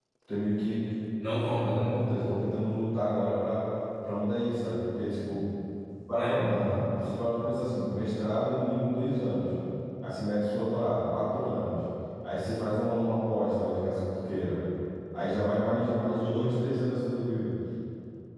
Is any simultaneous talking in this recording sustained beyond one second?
No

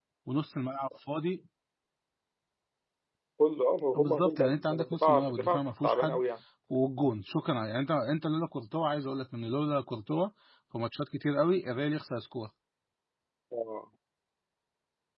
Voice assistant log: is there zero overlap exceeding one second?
No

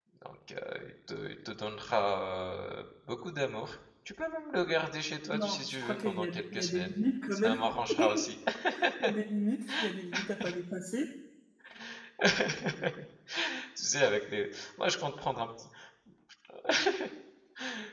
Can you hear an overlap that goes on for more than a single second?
Yes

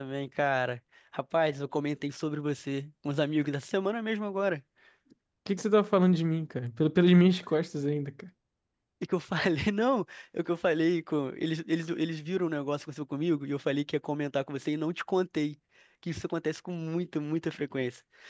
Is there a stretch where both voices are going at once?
No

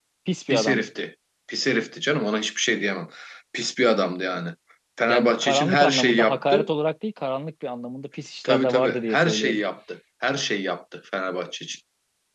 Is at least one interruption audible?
Yes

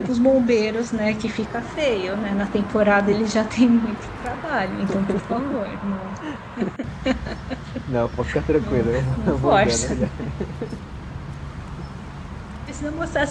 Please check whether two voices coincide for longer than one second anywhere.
Yes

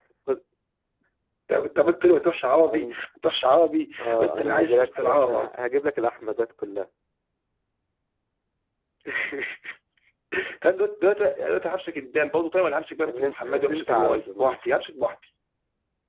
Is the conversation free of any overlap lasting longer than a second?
No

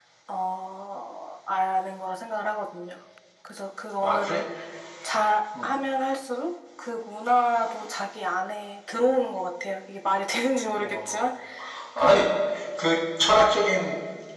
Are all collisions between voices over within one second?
Yes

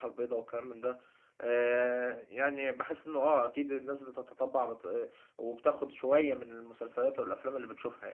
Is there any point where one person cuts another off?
No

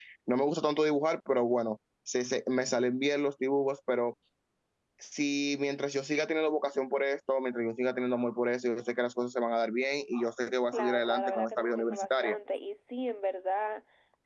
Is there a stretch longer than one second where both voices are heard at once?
Yes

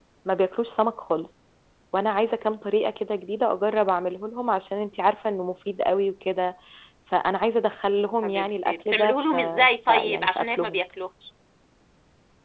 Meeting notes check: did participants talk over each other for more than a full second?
Yes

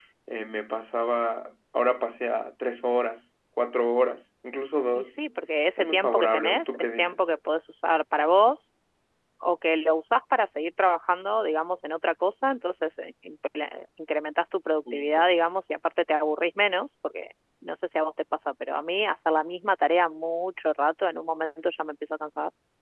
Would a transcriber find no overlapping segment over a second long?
No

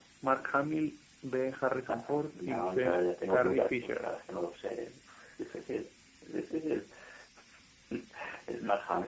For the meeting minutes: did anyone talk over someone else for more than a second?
Yes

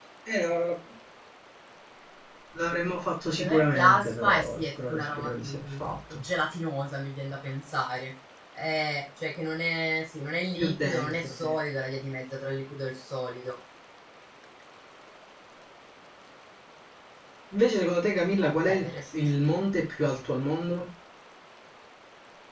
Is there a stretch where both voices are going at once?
Yes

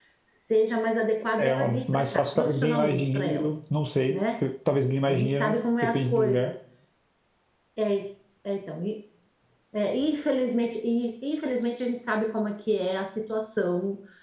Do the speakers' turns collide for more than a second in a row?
Yes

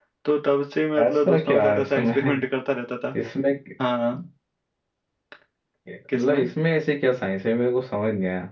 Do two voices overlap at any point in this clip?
Yes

